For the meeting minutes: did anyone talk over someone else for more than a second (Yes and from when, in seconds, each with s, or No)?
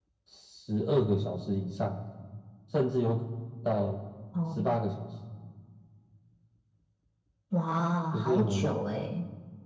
No